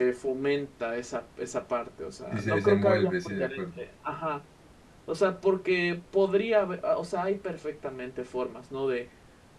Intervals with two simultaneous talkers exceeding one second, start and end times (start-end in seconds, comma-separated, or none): 2.3-3.8